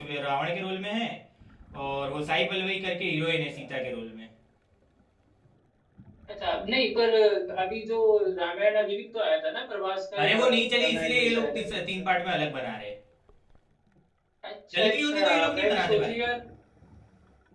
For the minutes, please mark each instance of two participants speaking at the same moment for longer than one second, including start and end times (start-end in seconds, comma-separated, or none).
10.2-11.7, 14.8-16.2